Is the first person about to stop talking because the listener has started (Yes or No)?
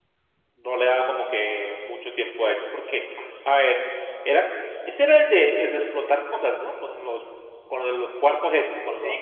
Yes